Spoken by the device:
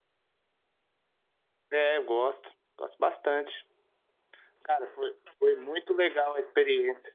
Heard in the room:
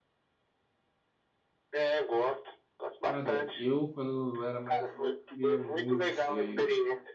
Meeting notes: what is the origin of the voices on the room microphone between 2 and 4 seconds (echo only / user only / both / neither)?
both